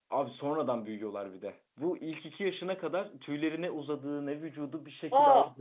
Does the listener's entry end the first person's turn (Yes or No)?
No